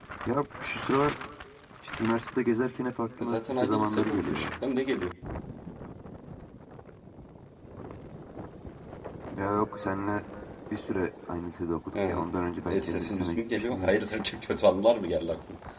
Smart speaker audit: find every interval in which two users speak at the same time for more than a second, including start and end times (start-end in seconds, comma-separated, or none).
3.2-4.5, 12.7-13.9